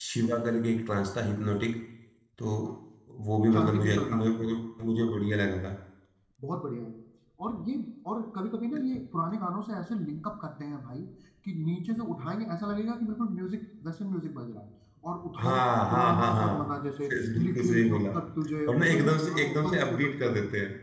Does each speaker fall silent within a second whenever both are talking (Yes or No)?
No